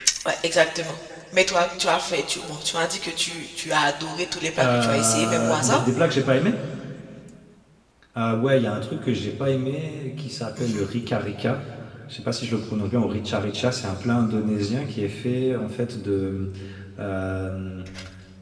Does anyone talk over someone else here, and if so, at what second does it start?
4.6 s

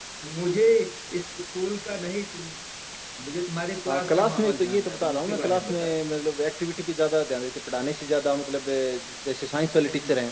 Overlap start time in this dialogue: 3.9 s

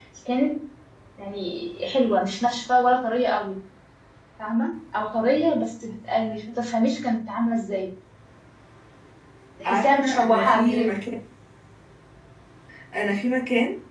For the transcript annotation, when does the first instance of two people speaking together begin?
9.6 s

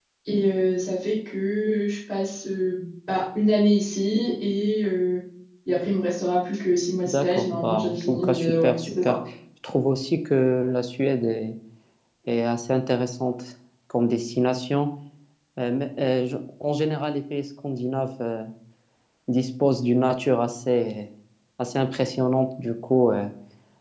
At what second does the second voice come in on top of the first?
7.1 s

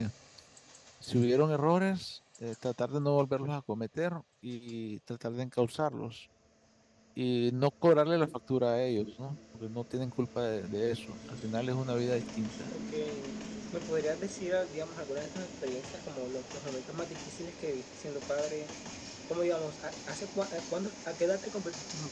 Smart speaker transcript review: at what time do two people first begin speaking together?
none

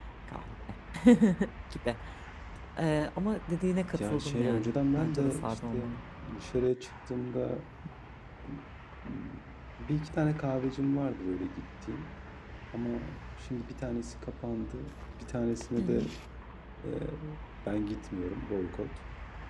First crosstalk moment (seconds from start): 4.0 s

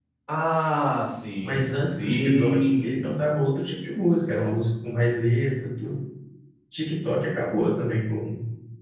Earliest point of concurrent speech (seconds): 1.4 s

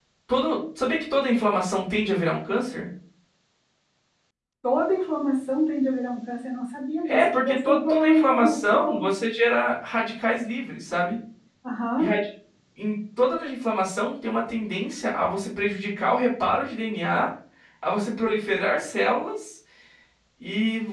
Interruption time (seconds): 7.0 s

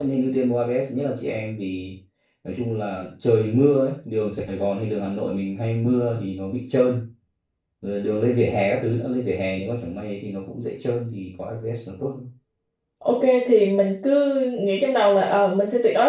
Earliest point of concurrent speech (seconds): none

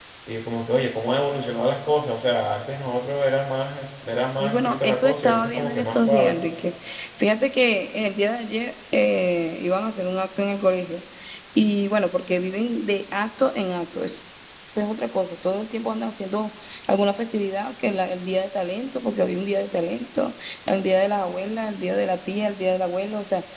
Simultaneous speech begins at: 4.4 s

